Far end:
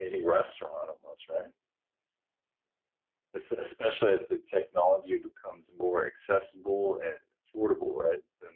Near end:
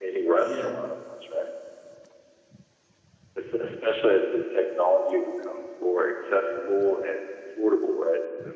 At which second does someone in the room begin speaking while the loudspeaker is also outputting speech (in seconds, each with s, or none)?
0.4 s